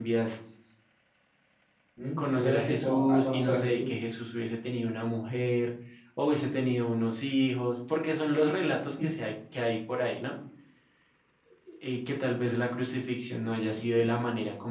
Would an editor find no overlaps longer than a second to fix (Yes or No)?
No